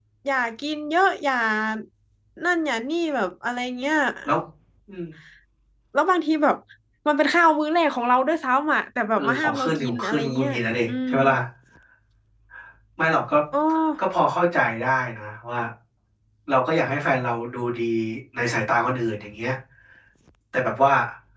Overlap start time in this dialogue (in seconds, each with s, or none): 9.2 s